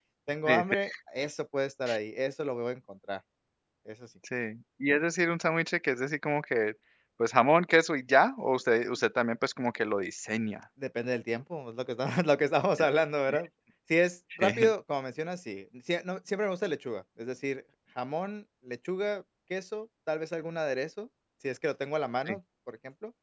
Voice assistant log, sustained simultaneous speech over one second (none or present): none